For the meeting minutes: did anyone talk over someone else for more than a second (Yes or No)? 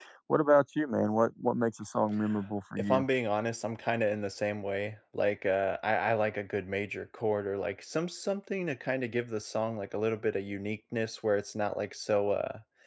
No